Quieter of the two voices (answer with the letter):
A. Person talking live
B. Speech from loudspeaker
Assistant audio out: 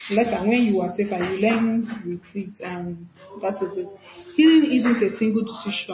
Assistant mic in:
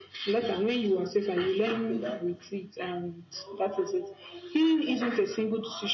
A